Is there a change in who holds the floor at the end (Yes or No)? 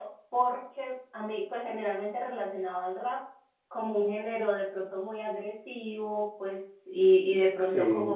No